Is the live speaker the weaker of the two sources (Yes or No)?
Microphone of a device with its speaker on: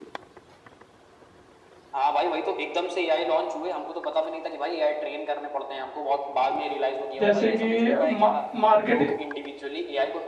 No